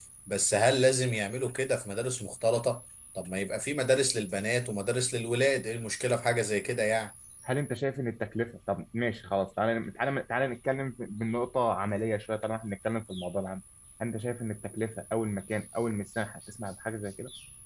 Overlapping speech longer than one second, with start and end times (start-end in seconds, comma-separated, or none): none